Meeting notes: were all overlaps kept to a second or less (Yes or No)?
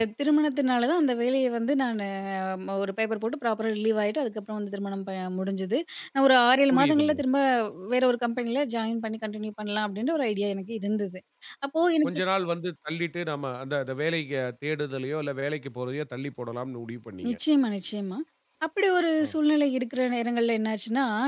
Yes